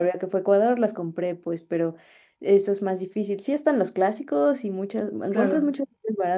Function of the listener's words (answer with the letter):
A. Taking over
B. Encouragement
B